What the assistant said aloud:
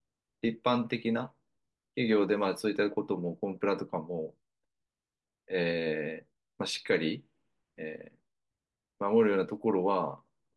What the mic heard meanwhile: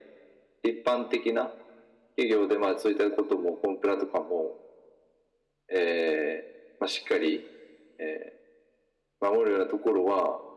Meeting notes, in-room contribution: none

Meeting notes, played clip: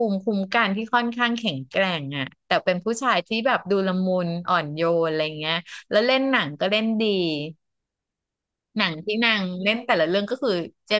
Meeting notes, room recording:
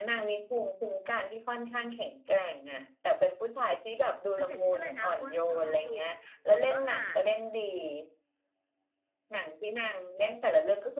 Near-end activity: present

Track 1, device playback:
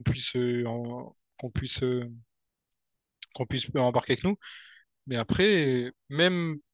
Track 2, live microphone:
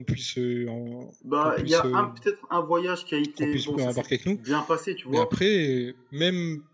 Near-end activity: present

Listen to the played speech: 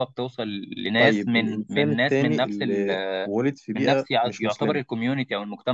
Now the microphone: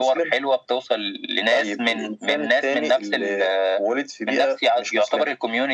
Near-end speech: none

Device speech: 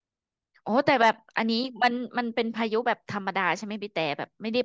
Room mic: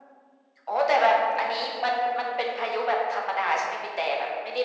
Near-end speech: none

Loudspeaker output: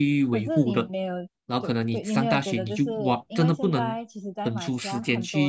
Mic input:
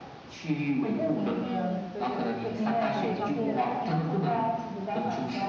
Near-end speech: present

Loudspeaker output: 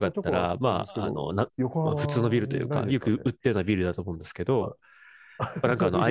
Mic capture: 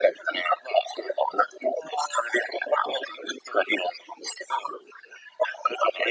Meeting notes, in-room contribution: none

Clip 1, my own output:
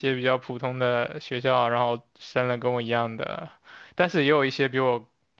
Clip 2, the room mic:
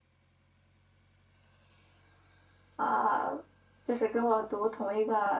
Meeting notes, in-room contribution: present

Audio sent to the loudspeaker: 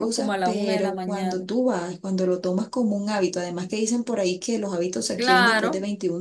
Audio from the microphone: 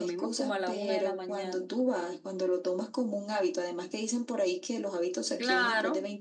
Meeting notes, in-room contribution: none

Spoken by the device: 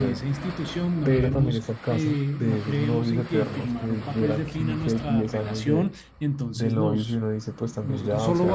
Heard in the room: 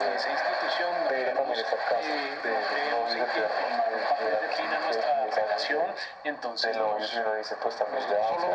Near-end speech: none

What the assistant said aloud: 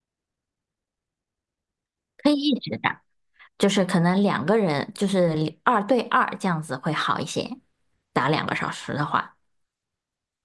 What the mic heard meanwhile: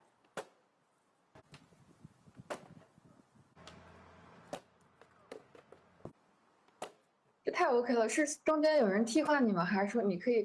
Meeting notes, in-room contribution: present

